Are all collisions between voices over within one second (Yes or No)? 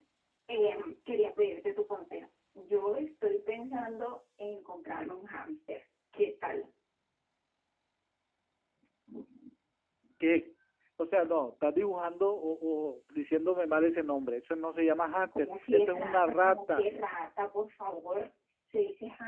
No